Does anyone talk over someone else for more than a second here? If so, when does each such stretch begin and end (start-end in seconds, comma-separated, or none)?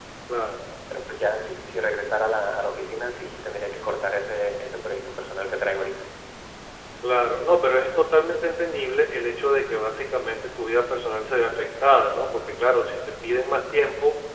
none